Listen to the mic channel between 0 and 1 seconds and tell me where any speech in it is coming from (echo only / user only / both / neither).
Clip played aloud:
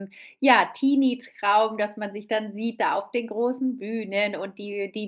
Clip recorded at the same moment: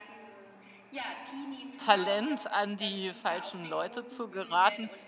echo only